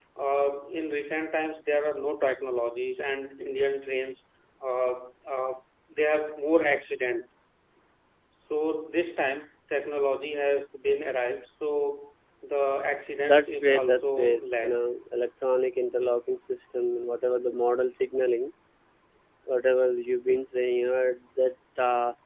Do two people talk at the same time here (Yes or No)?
Yes